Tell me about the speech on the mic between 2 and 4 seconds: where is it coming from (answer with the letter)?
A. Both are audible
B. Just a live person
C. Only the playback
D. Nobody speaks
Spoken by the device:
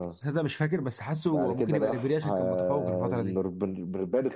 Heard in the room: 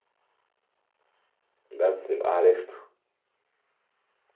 B